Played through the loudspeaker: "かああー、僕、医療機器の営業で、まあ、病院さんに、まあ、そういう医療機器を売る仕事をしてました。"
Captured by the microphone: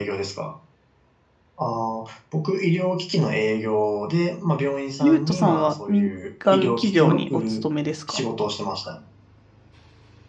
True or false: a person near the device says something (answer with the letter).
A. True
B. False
A